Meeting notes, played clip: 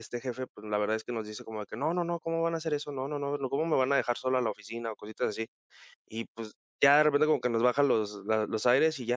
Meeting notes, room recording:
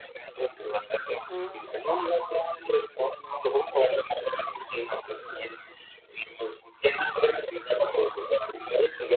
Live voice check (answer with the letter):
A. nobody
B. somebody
B